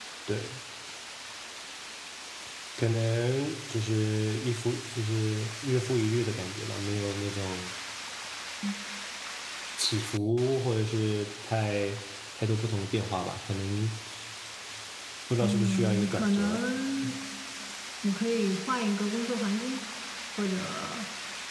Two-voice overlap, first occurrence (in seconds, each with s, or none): 15.4 s